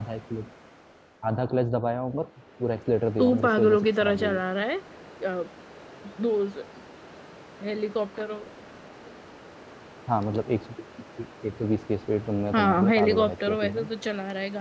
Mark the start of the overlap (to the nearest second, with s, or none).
3 s